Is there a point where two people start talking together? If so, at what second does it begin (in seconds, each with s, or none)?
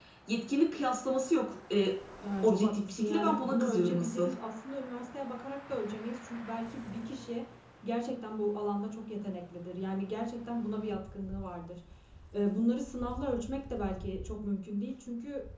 2.4 s